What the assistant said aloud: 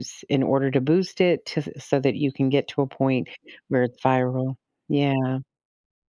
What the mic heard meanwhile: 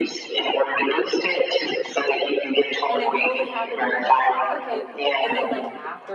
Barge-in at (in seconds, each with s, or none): 2.9 s